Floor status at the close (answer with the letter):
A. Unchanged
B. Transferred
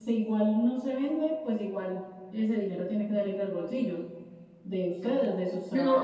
B